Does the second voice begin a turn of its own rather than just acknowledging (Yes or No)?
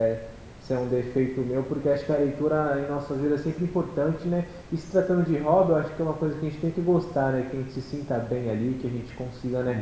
No